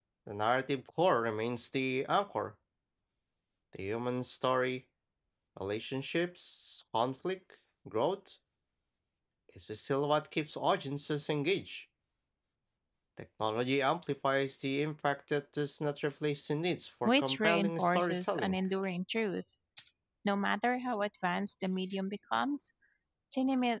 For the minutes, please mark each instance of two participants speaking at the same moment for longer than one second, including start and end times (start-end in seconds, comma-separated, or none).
17.0-18.6